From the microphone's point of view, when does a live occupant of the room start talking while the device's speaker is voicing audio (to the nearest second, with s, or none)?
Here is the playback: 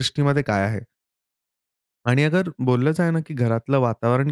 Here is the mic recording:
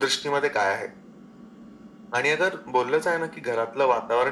none